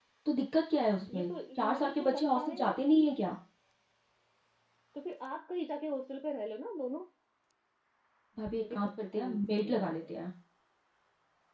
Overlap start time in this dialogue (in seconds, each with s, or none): 1.1 s